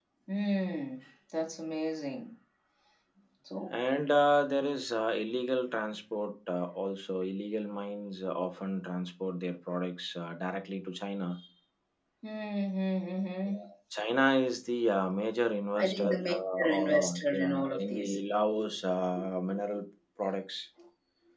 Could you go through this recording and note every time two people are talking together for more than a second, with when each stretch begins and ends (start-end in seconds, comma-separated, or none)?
15.8-18.1